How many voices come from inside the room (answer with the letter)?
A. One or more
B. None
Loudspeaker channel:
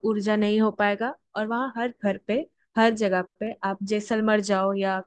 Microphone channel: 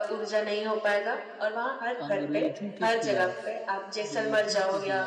A